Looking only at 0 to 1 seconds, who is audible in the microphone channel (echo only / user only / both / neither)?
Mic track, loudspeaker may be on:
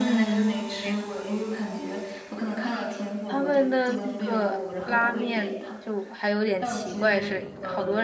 both